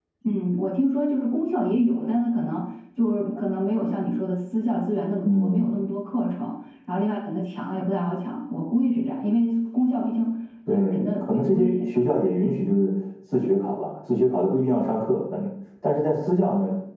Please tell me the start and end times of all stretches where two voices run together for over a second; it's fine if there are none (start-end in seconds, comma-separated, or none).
10.7-12.3